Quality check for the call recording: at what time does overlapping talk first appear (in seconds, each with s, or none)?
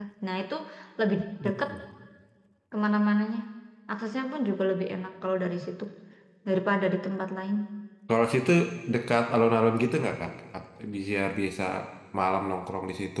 none